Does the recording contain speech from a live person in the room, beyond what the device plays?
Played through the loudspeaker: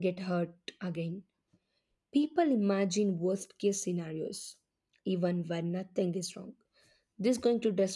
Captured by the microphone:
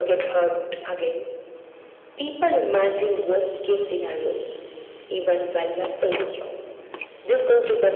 No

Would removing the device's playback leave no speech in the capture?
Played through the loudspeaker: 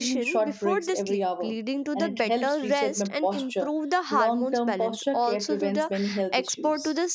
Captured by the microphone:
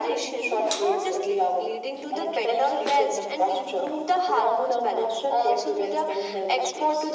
Yes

